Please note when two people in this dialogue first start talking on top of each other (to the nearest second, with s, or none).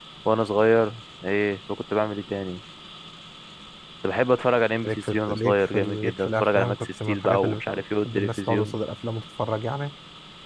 5 s